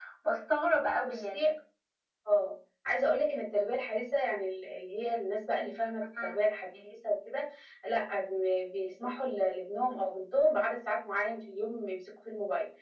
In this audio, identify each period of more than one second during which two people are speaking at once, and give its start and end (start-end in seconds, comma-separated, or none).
none